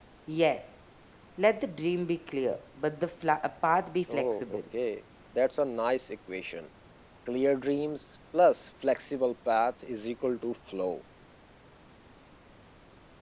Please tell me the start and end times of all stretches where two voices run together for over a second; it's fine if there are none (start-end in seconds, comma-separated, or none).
none